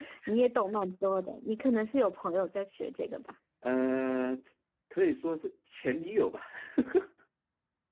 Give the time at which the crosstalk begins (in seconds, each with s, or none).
none